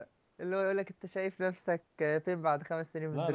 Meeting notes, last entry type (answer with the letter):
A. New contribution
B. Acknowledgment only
A